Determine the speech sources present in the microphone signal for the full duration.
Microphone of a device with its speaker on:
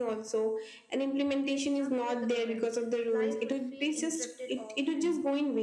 both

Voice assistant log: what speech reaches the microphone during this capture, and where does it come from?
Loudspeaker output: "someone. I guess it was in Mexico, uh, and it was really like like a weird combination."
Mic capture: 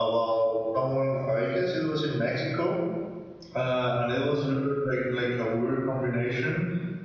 echo only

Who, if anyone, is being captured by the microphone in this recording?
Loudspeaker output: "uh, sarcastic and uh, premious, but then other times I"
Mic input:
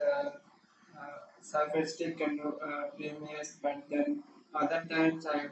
echo only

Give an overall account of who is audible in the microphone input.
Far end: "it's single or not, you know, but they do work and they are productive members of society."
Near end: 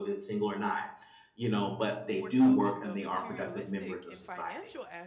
both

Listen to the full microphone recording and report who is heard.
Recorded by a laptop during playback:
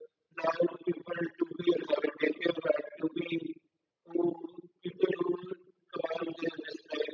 echo only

